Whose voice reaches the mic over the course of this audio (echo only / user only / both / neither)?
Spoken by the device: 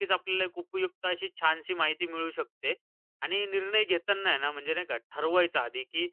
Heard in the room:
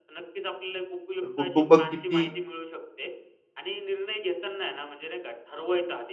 both